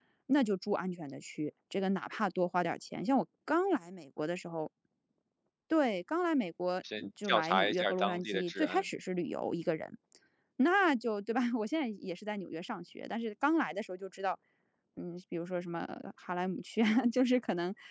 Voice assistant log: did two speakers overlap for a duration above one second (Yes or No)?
Yes